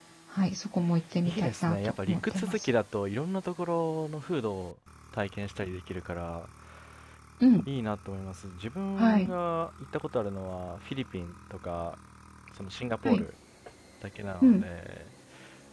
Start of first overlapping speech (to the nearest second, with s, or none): 1 s